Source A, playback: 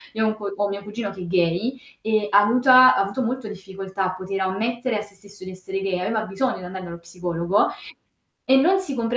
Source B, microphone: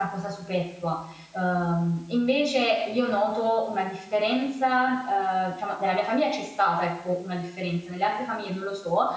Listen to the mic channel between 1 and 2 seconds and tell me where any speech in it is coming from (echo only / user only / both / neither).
user only